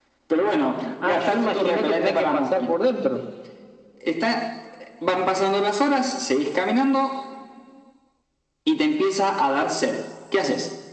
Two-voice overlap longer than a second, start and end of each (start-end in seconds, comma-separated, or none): 1.1-2.8